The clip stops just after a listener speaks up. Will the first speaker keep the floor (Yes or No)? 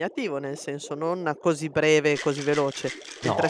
Yes